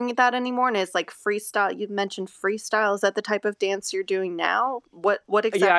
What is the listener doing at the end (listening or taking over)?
taking over